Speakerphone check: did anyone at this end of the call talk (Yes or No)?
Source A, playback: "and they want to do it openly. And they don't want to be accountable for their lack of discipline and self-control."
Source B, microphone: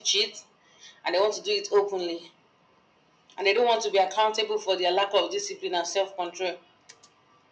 No